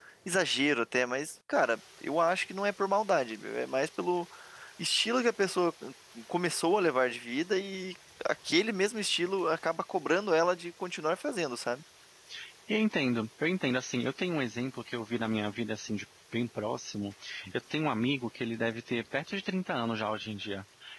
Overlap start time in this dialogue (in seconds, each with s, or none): none